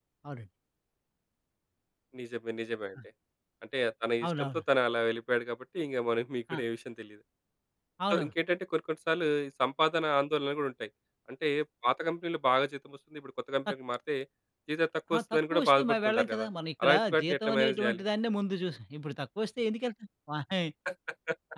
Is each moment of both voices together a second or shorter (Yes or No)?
No